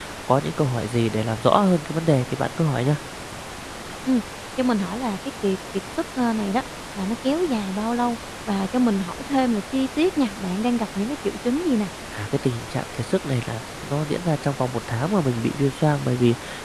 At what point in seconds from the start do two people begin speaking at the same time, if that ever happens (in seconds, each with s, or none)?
none